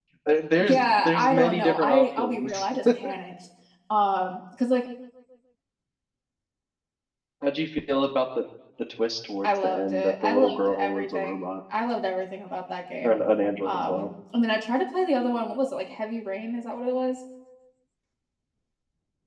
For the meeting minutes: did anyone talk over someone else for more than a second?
Yes, from 0.6 s

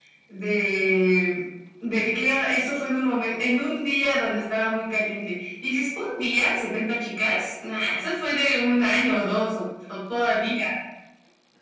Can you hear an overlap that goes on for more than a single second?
No

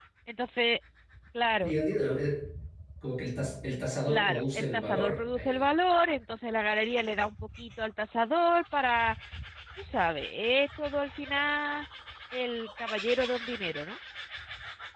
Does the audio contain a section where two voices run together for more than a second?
Yes, from 4.1 s

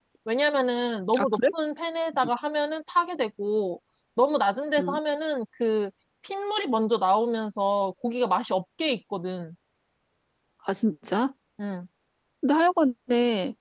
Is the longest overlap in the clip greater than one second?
No

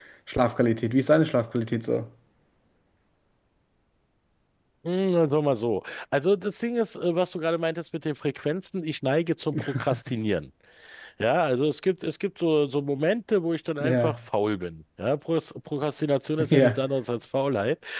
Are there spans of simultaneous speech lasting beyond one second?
No

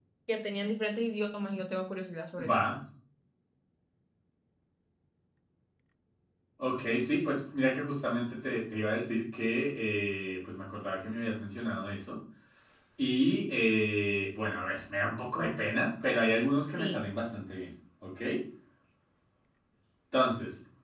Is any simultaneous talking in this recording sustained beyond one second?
No

